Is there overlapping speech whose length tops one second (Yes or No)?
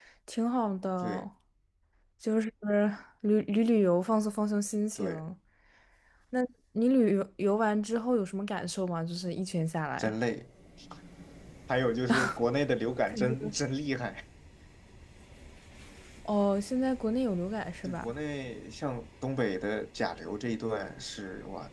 No